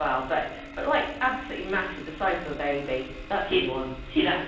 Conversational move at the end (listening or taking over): taking over